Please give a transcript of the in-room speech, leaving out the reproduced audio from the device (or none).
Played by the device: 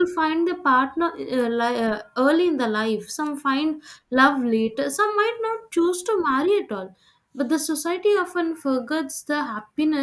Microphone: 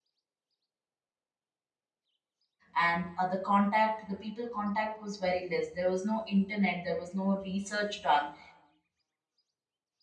and uh, the contact the people contact was very less there was no internet there was no research done